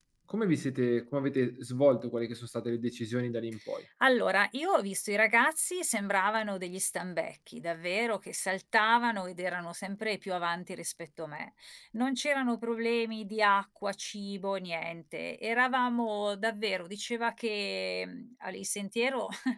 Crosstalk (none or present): none